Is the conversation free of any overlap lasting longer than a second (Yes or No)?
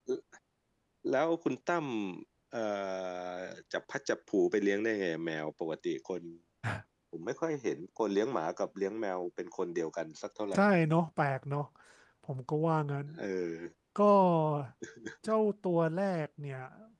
Yes